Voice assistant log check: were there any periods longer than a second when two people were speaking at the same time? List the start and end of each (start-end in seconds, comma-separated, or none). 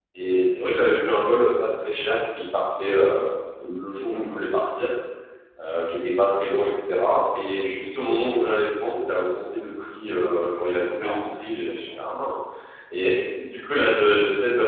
10.7-12.0